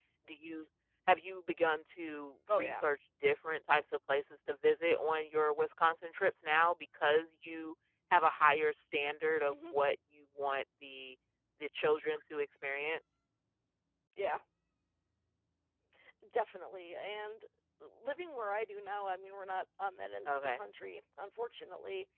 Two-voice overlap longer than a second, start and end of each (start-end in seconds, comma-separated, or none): none